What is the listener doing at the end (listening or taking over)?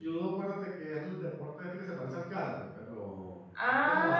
listening